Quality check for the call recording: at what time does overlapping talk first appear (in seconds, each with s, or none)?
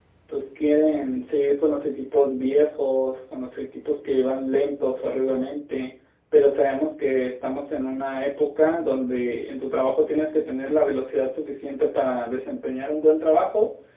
none